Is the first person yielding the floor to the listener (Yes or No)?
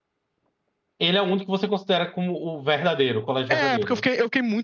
Yes